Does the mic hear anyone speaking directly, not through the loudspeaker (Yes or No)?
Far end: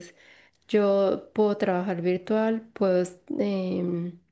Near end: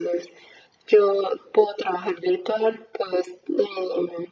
No